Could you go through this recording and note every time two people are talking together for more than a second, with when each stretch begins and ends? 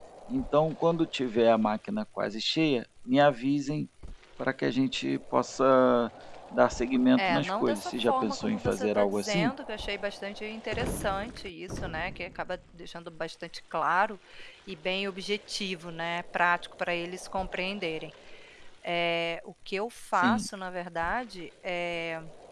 7.2-9.5

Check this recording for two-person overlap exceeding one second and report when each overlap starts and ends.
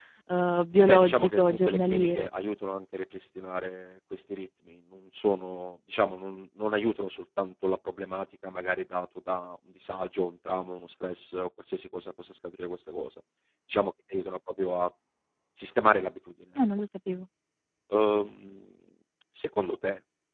0.9-2.3

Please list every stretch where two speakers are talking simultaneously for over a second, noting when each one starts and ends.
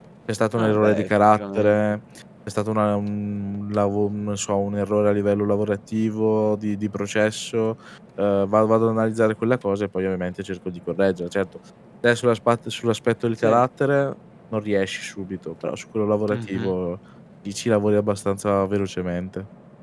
0.6-1.8

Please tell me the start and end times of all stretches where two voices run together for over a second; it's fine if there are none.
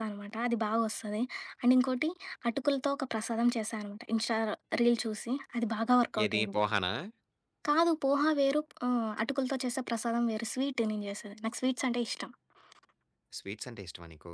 none

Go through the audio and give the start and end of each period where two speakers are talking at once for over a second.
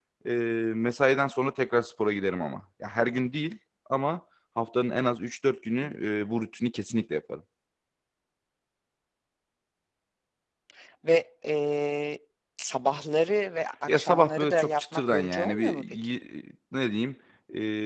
13.9-16.1

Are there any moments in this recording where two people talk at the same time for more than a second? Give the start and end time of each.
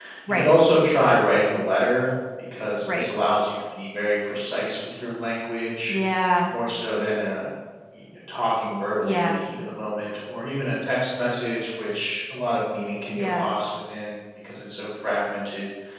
none

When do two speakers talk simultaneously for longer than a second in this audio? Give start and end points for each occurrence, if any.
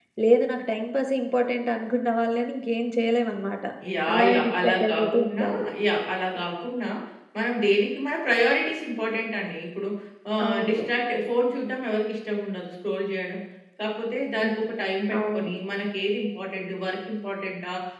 4.1-5.5

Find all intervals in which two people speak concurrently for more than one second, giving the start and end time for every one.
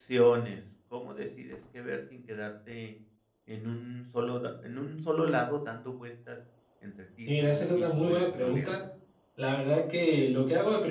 7.4-8.7

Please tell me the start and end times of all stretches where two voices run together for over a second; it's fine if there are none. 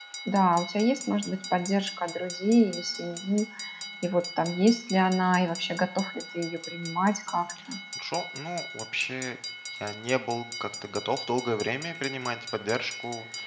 none

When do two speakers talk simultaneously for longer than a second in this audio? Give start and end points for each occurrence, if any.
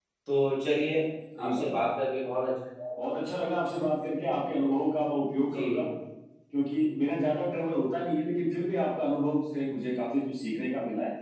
none

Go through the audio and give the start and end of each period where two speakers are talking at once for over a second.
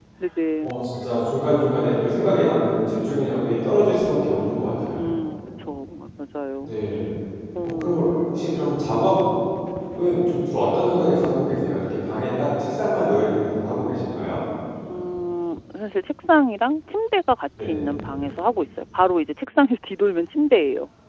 none

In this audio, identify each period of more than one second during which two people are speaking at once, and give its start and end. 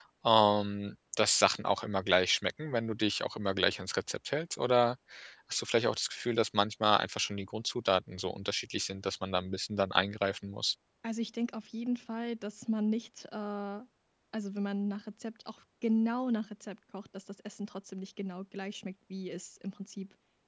none

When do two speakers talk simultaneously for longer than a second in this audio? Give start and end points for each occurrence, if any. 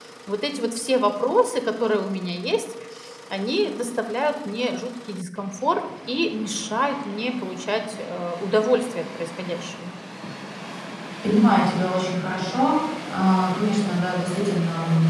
none

